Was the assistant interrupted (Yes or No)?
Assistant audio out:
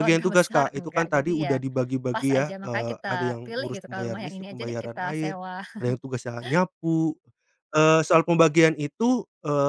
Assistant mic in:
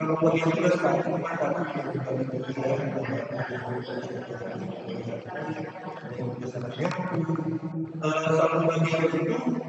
No